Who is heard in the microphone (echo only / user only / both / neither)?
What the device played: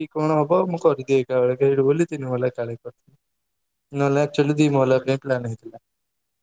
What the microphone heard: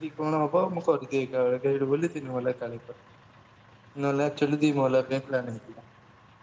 echo only